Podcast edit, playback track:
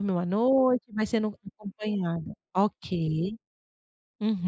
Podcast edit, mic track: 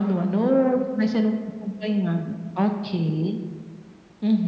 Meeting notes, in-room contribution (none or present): none